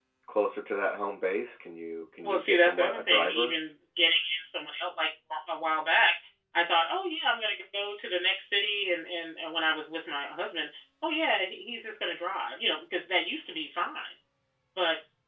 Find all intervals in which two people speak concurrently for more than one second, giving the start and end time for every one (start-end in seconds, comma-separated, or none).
2.2-3.6